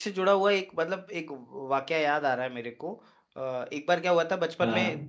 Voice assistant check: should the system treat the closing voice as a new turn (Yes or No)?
No